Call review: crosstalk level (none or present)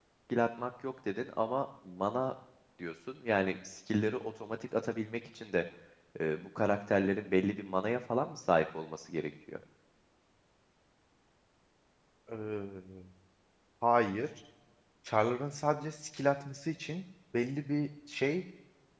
none